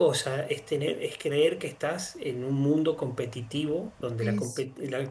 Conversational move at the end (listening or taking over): listening